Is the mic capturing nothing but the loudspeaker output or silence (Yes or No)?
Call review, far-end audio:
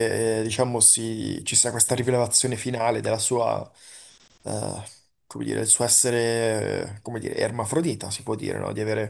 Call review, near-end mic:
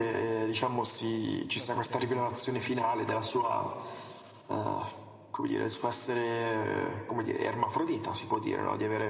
No